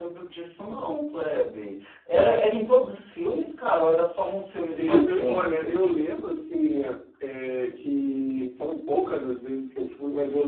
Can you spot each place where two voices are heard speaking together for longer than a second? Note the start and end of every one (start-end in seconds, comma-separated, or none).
4.8-6.0